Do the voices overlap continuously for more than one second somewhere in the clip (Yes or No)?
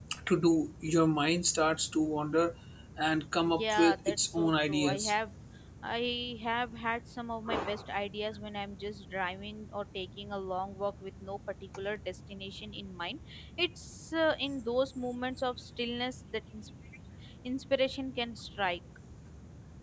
Yes